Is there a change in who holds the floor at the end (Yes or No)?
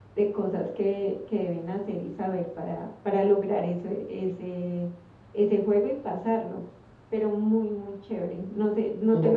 Yes